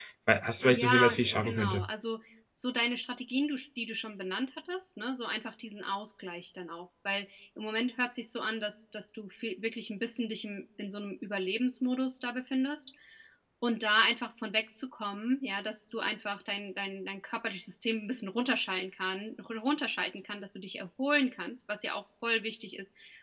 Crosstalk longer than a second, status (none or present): present